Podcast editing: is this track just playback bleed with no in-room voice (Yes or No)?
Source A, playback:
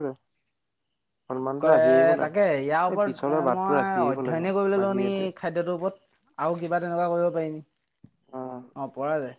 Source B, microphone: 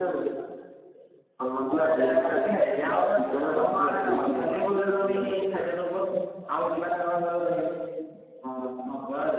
Yes